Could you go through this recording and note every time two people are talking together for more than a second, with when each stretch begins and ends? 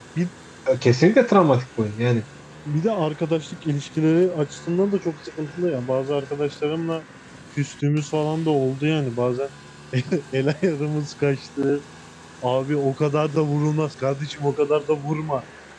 none

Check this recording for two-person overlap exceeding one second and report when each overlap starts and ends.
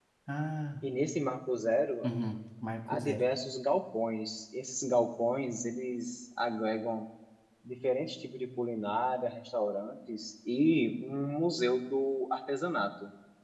none

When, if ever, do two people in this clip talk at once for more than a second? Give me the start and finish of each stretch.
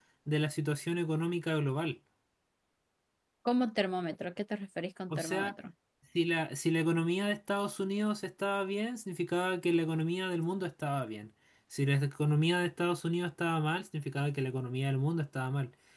none

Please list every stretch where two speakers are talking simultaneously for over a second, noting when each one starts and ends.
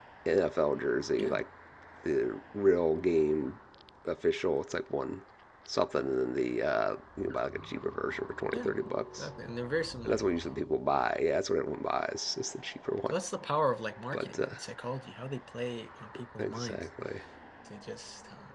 none

